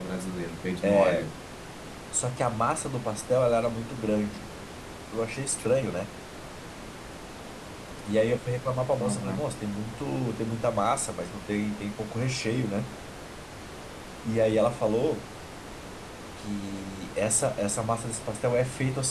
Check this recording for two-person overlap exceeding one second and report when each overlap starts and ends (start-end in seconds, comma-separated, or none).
none